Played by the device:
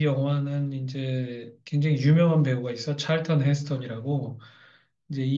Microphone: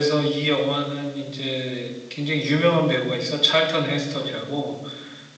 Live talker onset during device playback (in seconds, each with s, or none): none